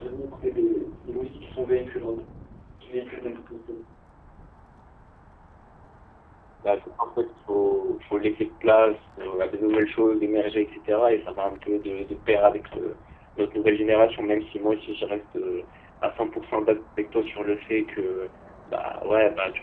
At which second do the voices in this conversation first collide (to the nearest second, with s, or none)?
none